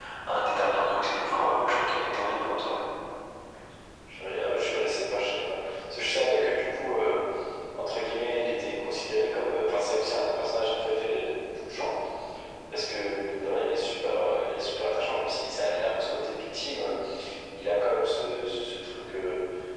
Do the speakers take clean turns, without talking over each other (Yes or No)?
Yes